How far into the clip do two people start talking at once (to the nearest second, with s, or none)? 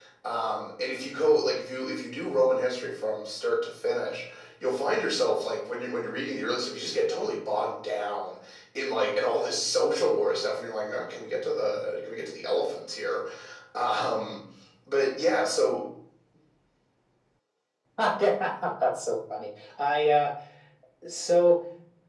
none